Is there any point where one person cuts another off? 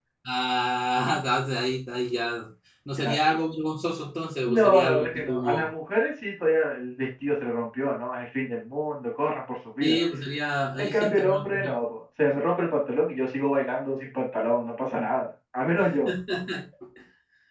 Yes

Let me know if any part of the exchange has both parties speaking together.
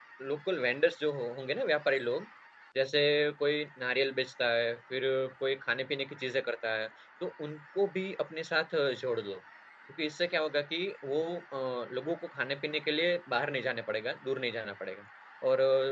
No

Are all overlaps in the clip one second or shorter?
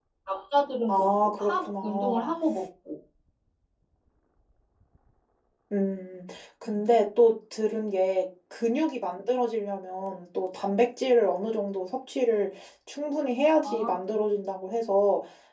No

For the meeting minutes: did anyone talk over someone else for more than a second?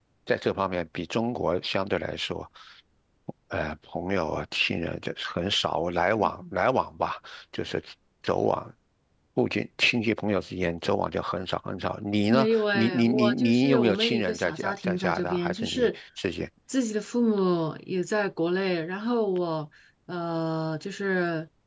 Yes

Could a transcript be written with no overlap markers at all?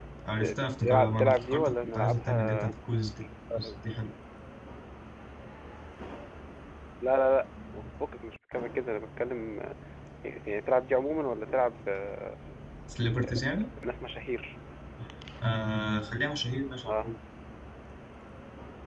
No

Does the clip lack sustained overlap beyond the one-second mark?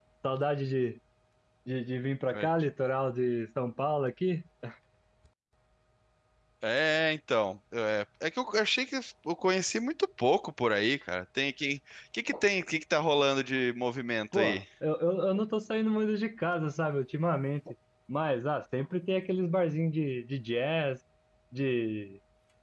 Yes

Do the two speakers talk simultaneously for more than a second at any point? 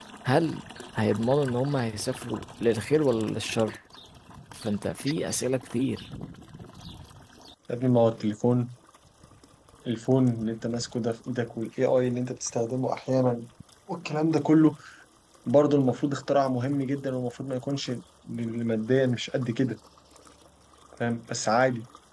No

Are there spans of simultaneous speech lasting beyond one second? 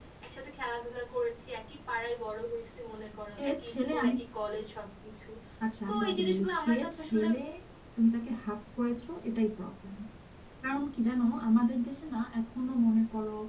Yes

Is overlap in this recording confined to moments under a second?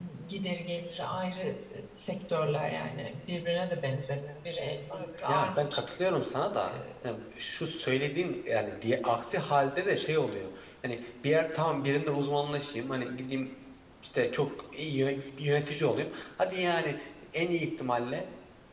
Yes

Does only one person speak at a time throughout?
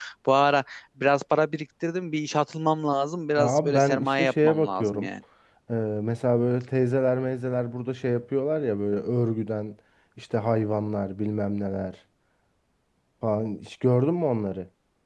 No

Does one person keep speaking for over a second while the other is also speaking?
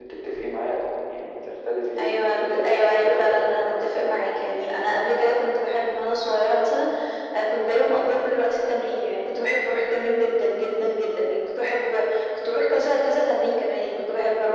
Yes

